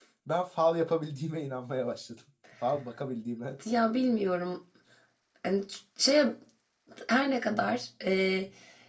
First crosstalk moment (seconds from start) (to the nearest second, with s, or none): none